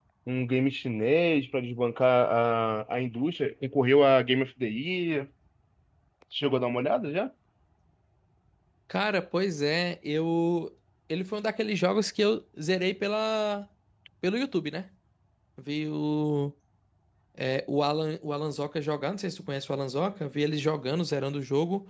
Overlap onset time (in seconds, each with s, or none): none